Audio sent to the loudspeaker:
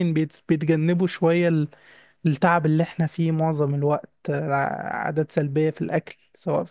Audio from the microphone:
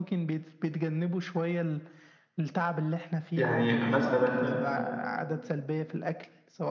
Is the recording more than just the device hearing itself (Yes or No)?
Yes